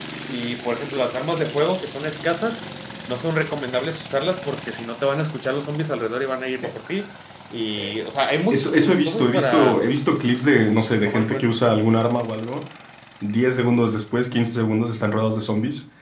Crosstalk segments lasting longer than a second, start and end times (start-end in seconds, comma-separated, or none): 8.5-9.8